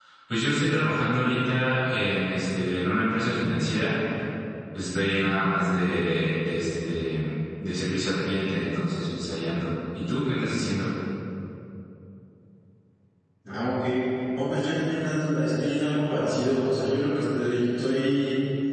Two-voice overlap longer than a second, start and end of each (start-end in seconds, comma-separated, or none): none